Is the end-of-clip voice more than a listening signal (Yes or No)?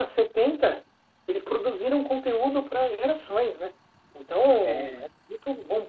No